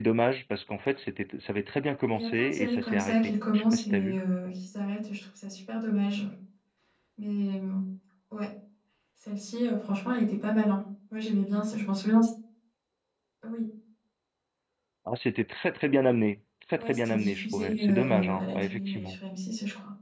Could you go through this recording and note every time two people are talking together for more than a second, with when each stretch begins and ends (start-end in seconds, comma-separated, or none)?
2.1-4.2, 16.8-19.2